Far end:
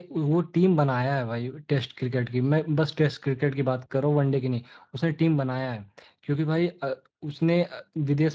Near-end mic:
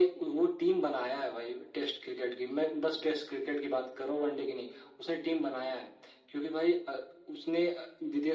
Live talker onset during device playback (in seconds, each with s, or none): none